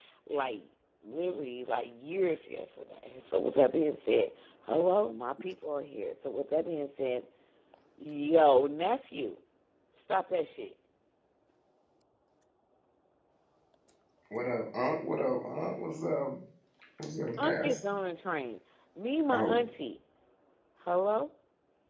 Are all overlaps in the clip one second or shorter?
Yes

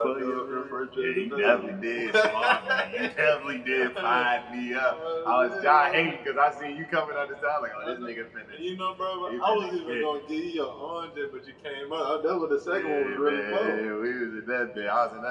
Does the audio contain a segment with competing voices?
No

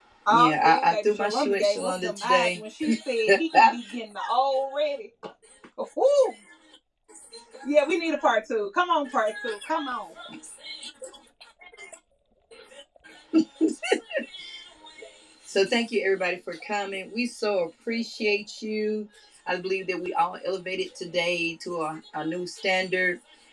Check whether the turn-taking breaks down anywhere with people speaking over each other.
Yes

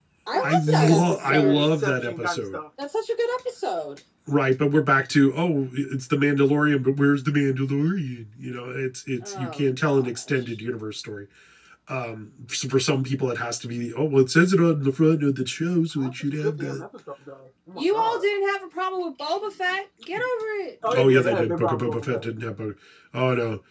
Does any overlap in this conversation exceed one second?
Yes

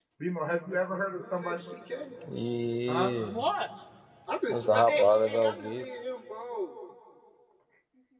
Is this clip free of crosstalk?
No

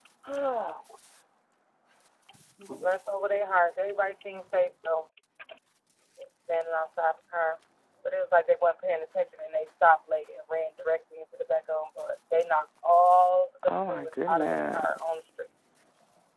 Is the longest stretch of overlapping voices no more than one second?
No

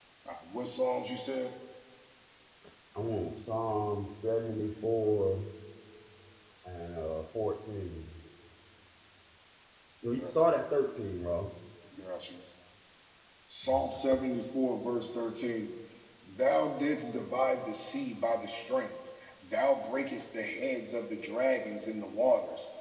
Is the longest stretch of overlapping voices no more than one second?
Yes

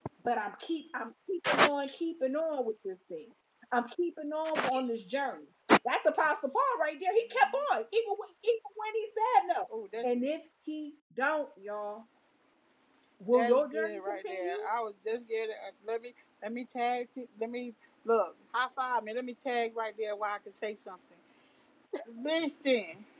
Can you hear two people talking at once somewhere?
Yes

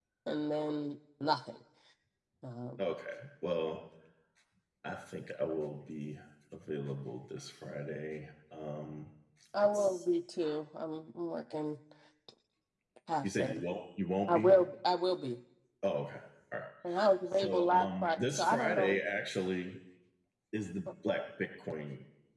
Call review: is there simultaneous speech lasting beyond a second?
Yes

